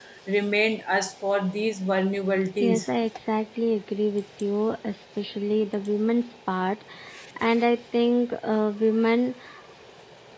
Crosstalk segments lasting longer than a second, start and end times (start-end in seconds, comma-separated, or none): none